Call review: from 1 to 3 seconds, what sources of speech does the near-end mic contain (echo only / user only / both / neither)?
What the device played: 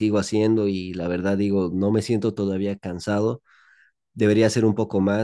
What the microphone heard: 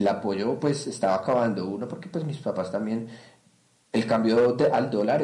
user only